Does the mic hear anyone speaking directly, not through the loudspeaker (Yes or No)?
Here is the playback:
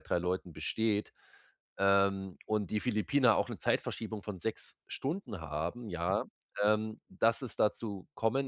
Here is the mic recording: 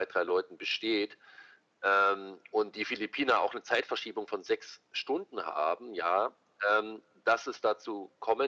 No